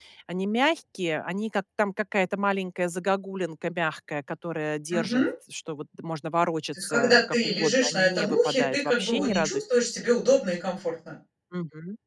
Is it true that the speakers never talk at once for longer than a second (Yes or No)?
No